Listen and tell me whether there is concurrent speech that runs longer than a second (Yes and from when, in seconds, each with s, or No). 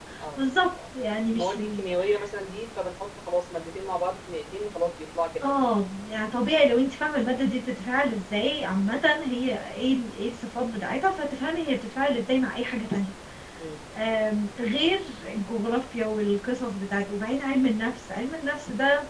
No